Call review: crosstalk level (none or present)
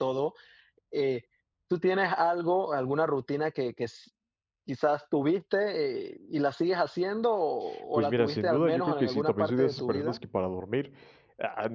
present